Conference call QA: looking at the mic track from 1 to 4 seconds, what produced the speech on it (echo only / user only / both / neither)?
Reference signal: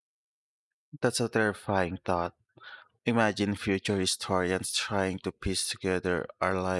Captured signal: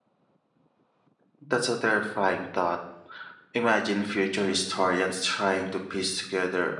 echo only